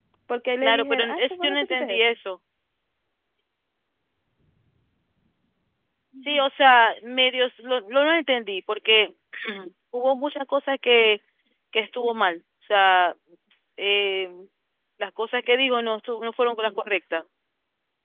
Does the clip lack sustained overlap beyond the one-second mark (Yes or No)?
No